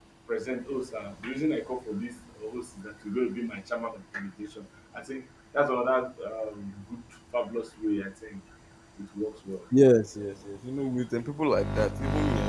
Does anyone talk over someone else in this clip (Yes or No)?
No